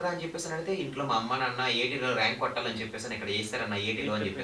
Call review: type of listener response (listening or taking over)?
taking over